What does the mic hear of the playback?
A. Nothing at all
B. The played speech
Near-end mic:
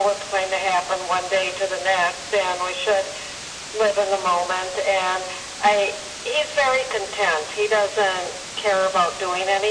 B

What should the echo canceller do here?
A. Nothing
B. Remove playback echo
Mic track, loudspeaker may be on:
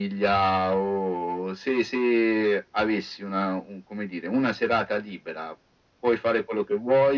B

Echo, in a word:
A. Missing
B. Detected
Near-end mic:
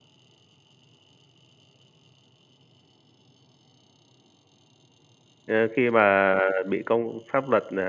A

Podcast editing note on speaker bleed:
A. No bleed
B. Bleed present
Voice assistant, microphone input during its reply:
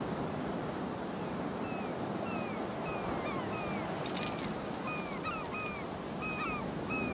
A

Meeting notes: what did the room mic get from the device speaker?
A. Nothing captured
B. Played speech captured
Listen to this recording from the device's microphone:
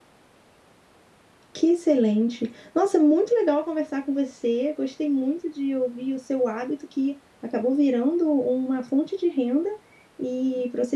A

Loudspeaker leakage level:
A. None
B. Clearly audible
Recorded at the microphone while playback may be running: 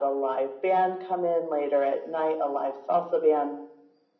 B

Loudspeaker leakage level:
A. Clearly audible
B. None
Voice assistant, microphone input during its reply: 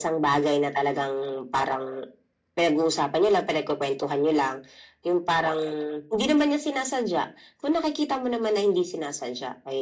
A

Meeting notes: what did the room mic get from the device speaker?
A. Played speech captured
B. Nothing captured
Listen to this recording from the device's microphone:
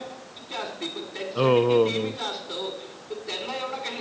A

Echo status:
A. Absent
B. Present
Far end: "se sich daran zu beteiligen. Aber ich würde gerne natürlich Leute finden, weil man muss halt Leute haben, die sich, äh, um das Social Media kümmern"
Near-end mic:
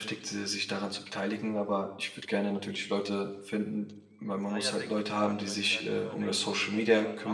B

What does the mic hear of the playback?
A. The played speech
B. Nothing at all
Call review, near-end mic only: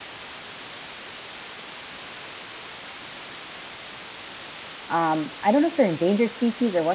B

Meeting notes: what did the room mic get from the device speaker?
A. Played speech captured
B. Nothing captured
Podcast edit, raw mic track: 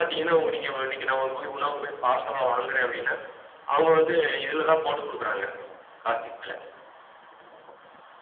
A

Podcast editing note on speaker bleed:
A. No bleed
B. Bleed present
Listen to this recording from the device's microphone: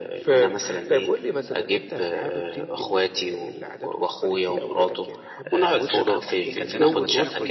B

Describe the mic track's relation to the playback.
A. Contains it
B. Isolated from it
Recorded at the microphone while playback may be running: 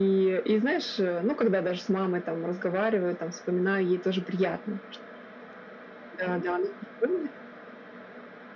A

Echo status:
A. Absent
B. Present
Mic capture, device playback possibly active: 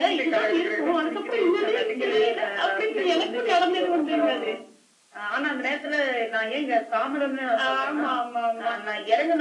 B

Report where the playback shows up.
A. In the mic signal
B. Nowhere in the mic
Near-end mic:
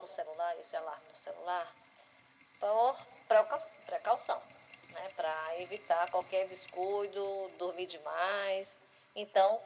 A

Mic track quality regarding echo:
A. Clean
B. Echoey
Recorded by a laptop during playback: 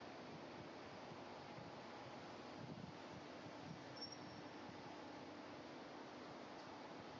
A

